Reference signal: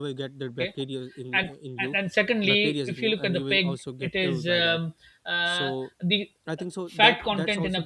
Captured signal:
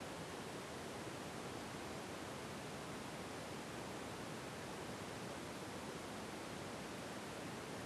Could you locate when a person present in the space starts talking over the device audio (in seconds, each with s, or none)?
none